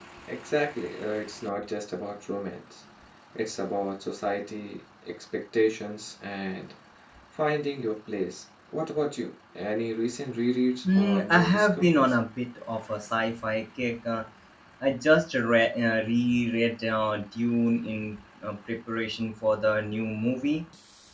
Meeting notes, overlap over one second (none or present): present